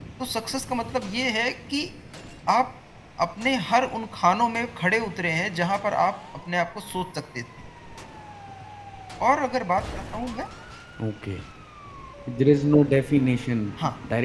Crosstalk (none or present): none